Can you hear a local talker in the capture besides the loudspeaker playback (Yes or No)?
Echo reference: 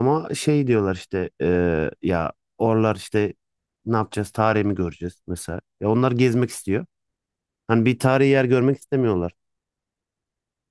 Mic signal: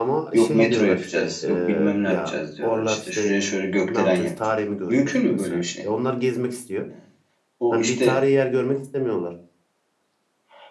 Yes